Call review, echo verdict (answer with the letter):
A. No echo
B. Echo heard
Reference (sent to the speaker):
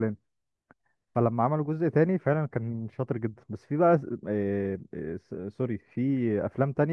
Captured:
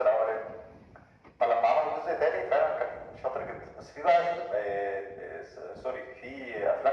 B